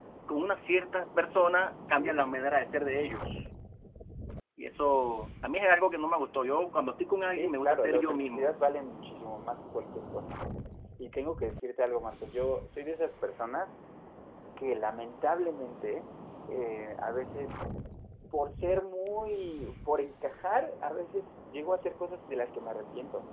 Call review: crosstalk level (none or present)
present